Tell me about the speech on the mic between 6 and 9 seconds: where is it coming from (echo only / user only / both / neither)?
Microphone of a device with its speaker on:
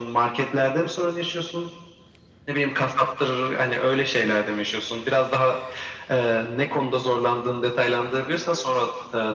echo only